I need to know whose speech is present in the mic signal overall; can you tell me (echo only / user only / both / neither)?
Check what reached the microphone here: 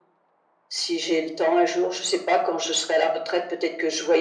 echo only